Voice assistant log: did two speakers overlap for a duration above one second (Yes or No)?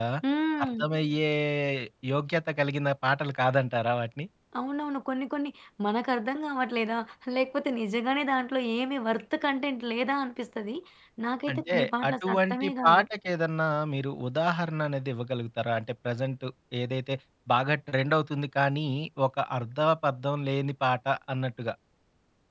Yes